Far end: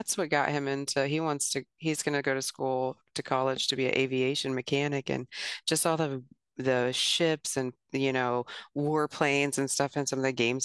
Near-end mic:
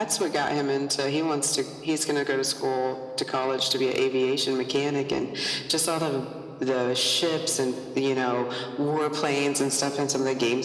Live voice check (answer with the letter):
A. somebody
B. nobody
B